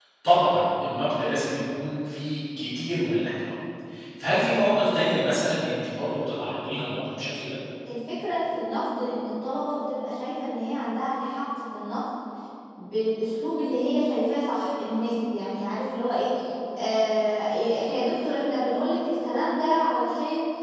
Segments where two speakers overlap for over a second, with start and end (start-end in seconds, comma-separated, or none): none